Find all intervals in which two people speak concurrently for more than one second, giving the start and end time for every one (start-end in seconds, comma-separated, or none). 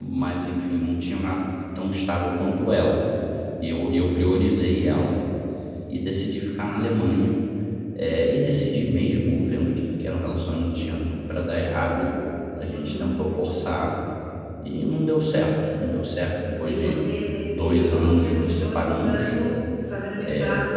17.5-19.4